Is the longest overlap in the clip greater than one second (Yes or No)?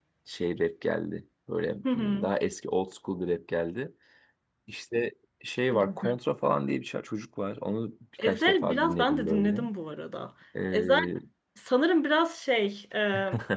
Yes